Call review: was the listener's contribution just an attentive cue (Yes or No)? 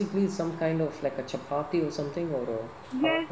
No